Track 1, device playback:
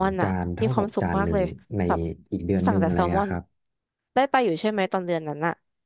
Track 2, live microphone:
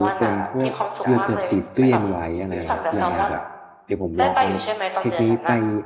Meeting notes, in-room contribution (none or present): present